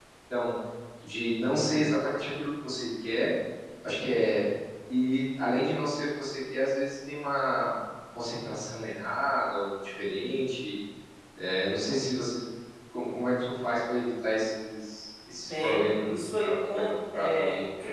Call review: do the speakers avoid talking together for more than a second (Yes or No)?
No